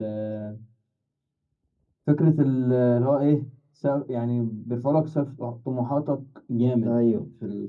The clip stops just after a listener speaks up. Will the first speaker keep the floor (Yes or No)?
Yes